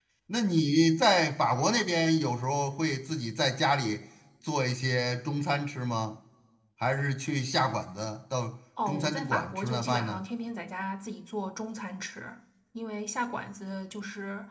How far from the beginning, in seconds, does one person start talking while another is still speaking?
8.8 s

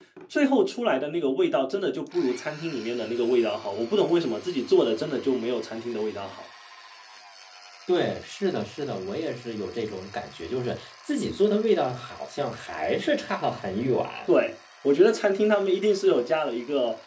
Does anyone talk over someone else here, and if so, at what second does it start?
none

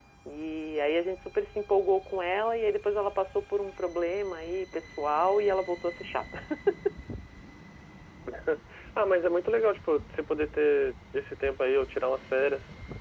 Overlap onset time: none

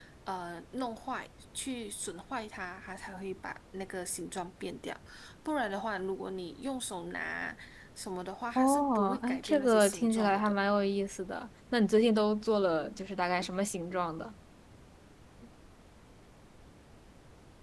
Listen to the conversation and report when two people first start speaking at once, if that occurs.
8.6 s

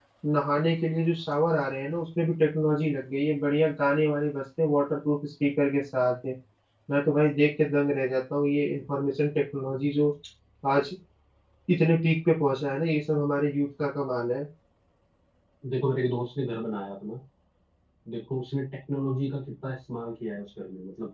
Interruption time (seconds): none

